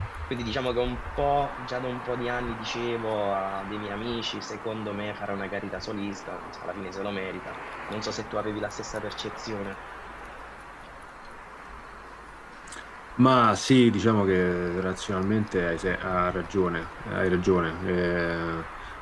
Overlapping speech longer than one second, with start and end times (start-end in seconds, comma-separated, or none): none